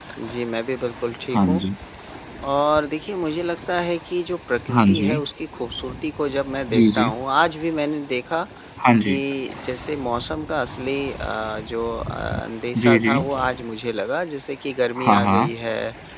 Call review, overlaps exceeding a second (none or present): none